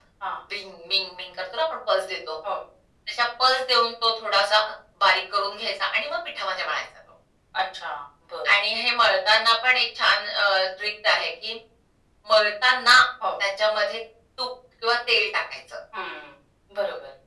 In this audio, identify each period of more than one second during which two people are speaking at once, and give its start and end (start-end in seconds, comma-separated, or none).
none